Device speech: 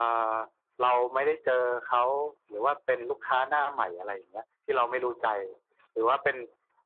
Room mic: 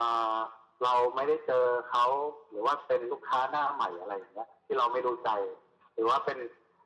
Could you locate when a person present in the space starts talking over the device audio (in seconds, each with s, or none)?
none